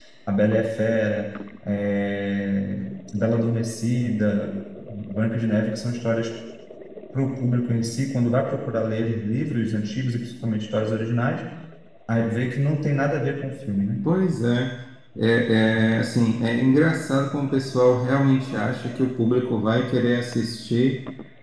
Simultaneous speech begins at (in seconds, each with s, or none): none